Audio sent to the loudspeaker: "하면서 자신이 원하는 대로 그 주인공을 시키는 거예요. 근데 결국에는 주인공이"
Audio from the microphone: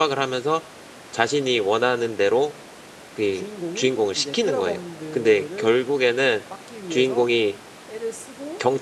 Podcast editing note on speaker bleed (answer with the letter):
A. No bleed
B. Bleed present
B